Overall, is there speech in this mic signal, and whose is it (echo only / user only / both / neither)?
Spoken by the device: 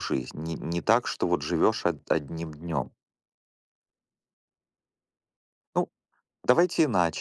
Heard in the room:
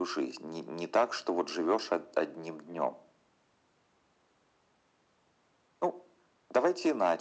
echo only